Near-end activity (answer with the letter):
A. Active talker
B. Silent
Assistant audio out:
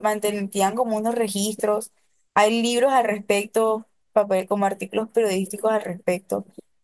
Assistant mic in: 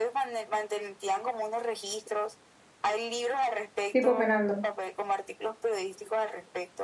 A